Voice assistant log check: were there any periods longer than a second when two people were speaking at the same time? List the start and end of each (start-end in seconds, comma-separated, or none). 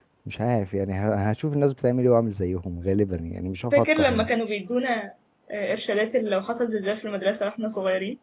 none